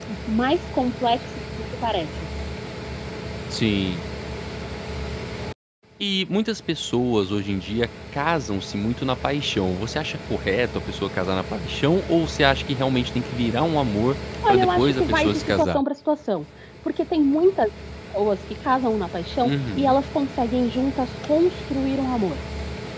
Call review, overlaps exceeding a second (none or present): present